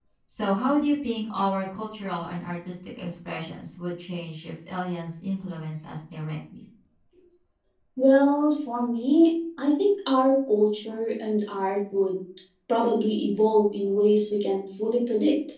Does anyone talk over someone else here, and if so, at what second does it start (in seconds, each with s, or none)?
none